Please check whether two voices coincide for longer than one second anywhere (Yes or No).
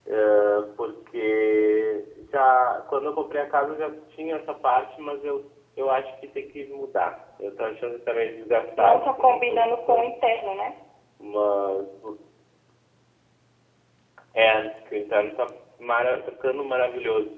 Yes